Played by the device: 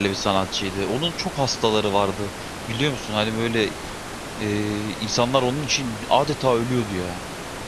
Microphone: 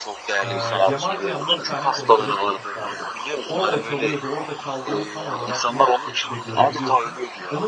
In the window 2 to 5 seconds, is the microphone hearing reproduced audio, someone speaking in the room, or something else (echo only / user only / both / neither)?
both